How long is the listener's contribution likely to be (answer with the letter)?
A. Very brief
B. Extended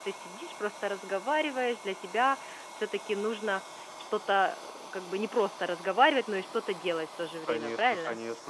B